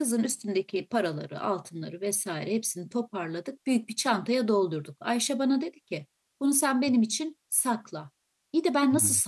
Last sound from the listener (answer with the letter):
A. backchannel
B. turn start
A